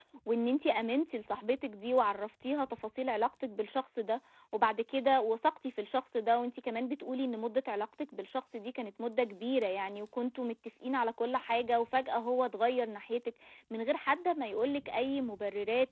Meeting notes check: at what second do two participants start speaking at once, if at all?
none

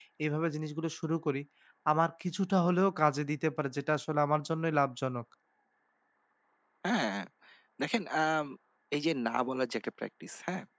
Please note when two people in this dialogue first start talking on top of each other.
none

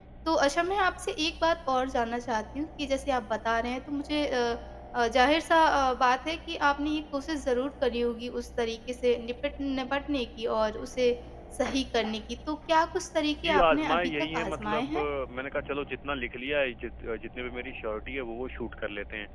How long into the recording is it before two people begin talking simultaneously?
13 s

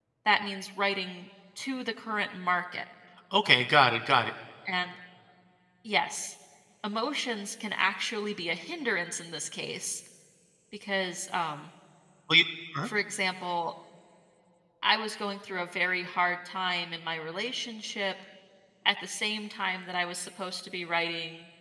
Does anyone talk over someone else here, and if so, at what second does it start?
none

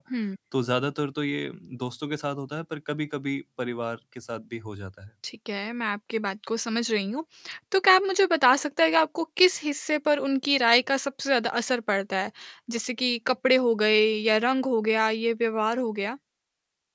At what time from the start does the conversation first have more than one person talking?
none

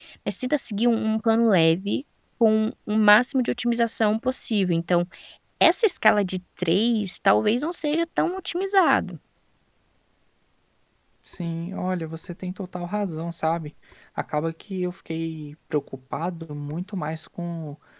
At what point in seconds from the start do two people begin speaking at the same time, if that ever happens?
none

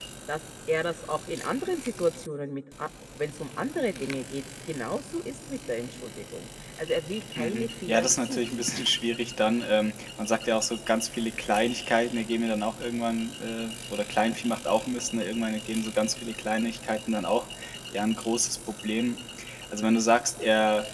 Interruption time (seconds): 7 s

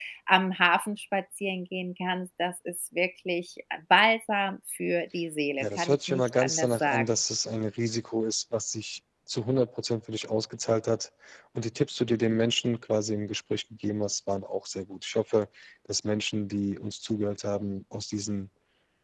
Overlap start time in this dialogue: 6 s

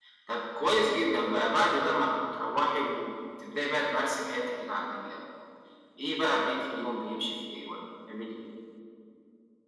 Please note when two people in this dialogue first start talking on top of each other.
none

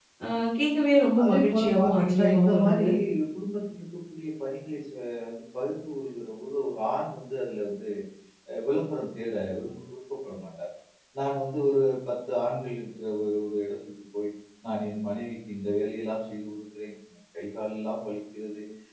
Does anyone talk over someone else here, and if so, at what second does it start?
1 s

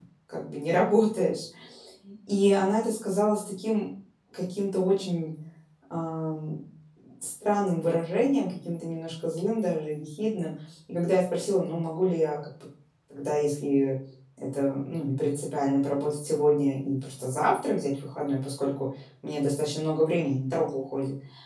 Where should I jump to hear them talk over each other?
none

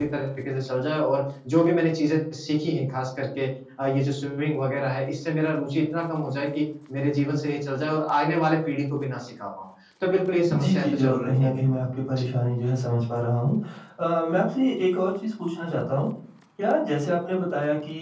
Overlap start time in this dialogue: 11 s

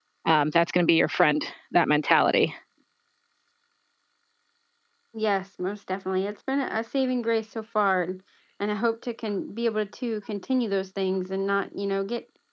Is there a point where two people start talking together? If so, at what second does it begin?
none

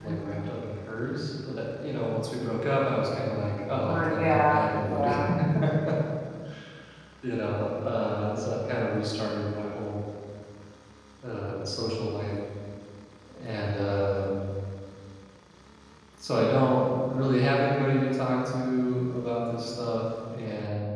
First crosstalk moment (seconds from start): 4 s

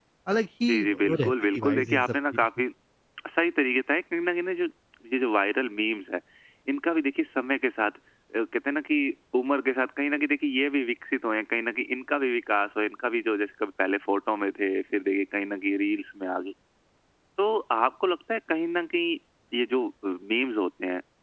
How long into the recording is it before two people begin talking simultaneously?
1 s

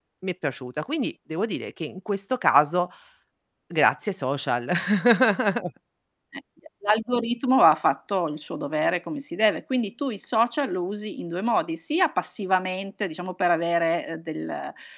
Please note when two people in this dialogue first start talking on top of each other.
none

